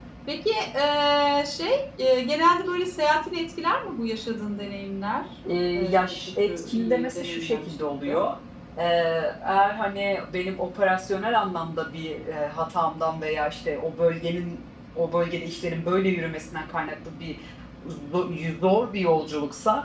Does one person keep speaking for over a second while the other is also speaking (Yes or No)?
Yes